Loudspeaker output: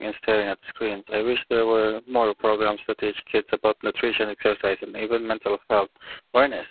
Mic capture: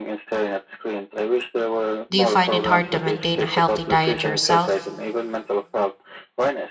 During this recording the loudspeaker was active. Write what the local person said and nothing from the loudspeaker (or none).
Do you find it hard to maintain a healthy diet yourself?